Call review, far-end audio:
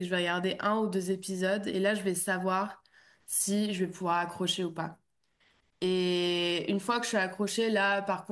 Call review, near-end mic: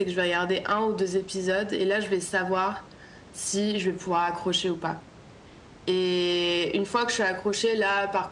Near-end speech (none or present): none